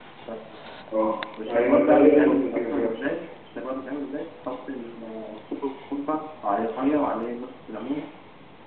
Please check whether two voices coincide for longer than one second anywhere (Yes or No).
Yes